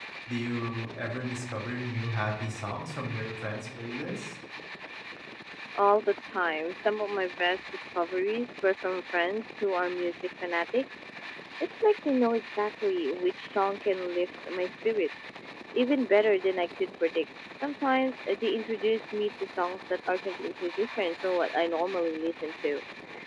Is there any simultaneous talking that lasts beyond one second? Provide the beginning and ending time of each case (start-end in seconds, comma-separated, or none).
none